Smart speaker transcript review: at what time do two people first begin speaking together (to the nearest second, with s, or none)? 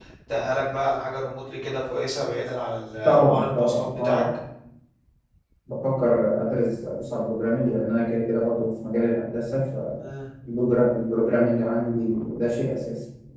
3 s